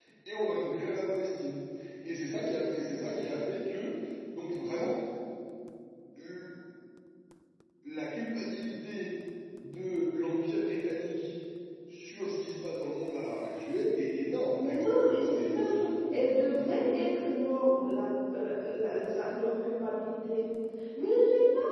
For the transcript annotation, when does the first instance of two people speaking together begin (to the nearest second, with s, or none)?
15 s